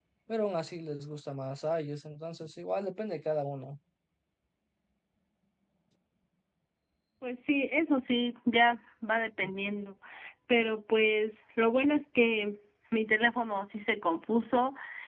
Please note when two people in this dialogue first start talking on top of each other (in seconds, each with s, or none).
none